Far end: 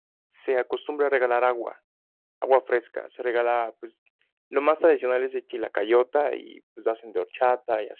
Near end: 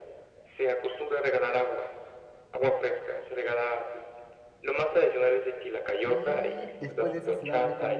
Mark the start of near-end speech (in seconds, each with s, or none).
6.0 s